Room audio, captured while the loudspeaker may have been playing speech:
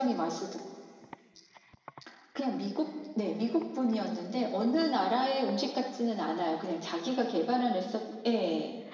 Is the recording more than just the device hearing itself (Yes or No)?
No